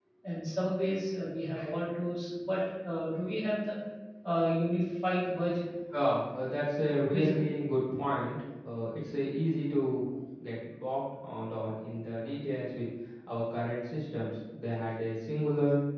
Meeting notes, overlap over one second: none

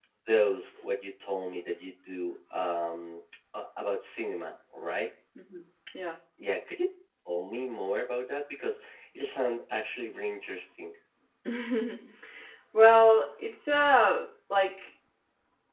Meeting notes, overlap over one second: none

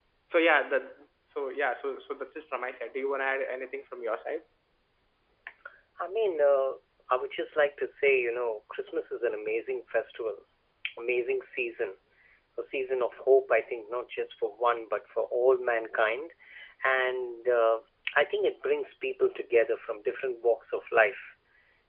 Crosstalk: none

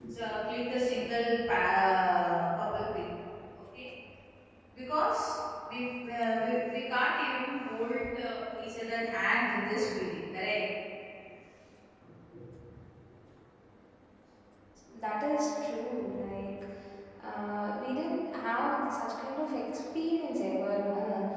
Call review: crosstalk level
none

